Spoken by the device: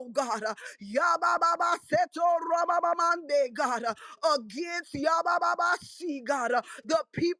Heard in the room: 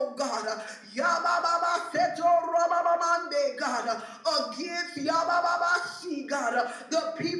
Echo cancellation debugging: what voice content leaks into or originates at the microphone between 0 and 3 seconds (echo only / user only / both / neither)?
echo only